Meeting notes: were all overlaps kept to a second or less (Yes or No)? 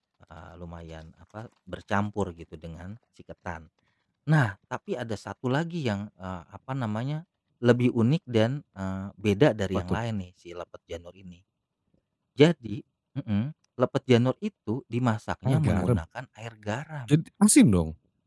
Yes